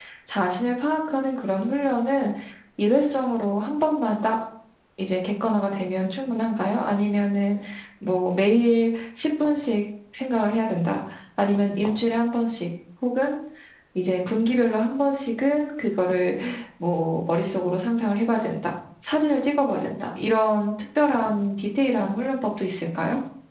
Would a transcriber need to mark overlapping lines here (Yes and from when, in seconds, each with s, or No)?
No